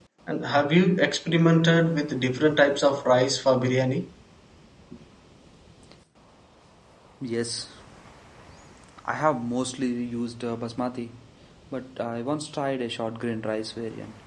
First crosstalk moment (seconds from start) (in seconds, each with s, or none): none